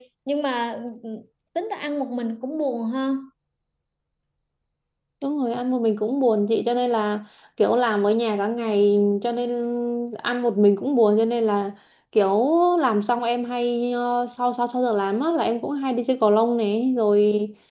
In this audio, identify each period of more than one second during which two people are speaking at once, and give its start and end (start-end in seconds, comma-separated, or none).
none